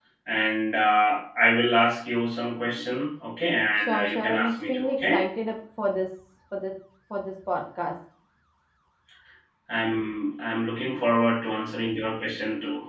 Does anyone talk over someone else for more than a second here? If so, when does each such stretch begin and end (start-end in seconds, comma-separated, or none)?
3.8-5.2